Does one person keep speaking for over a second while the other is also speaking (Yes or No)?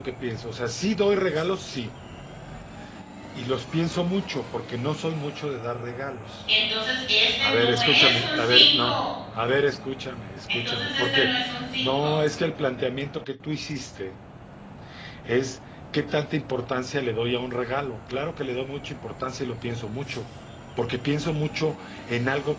Yes